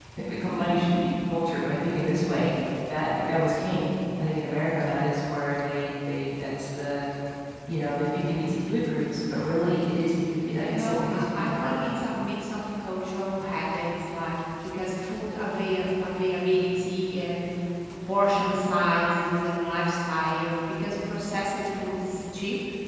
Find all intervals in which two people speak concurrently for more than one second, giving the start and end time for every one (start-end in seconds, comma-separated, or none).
10.6-12.1